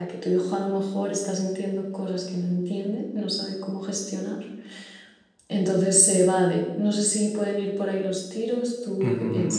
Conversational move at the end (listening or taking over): taking over